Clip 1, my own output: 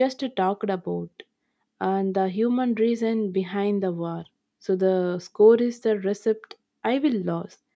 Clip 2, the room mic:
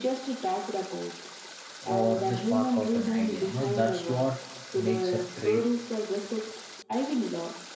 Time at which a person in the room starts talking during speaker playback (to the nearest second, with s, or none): 2 s